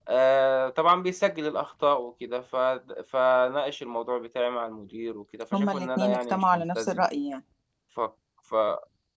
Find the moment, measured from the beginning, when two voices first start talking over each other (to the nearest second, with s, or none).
6 s